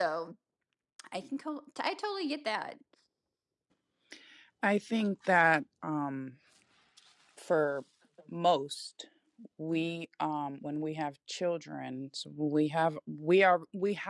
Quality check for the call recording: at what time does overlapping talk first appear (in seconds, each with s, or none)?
none